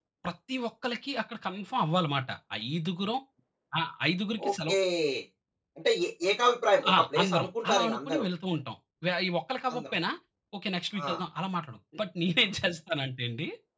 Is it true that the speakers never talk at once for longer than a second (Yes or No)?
No